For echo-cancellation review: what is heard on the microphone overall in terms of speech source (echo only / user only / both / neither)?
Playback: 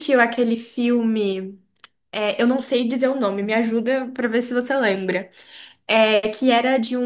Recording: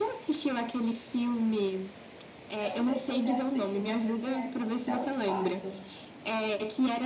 both